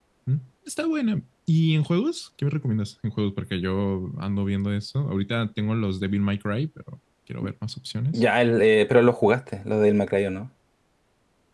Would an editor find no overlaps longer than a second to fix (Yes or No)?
Yes